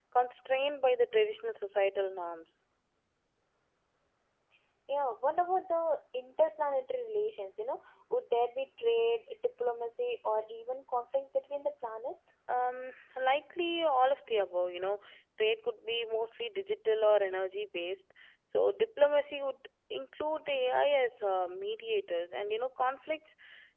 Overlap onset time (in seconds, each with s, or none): none